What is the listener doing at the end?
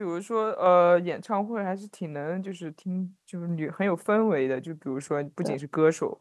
listening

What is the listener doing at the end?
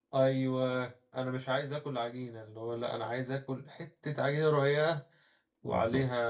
listening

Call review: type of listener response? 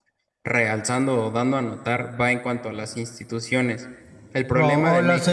taking over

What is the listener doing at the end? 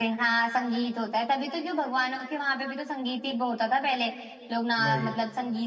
listening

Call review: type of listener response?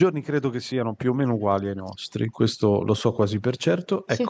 listening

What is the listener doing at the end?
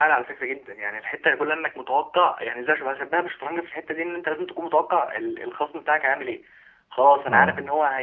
listening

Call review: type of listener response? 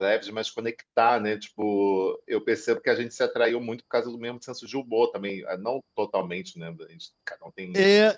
taking over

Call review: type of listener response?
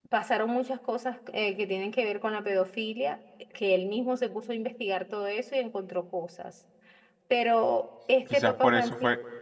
taking over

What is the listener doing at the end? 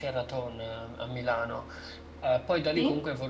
listening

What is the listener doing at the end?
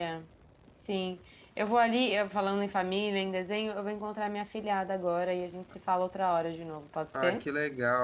taking over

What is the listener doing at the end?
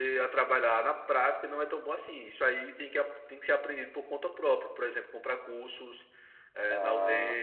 taking over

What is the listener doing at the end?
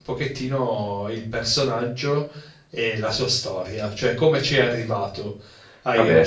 listening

